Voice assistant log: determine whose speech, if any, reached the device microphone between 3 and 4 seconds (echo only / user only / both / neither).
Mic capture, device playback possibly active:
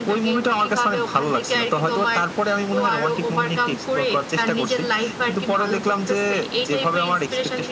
echo only